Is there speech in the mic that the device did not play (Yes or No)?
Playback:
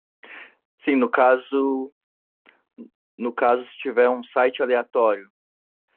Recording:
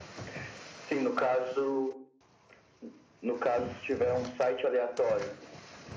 No